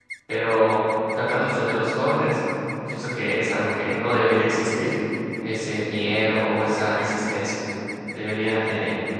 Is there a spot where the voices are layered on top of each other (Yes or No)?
No